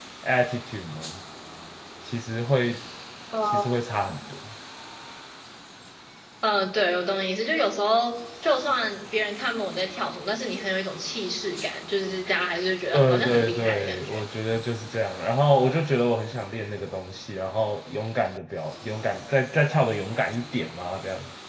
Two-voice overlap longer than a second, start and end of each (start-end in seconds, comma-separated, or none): 12.9-14.2